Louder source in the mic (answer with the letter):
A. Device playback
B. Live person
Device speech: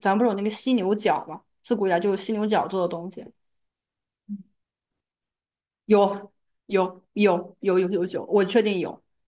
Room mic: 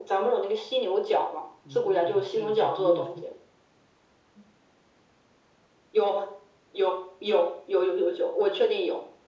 A